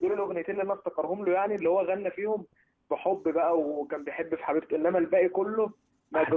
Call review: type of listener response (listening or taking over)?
listening